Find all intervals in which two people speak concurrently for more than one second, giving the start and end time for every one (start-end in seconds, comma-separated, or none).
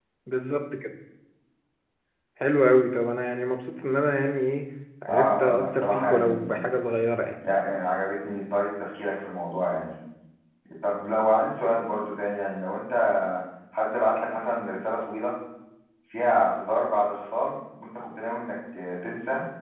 5.1-6.6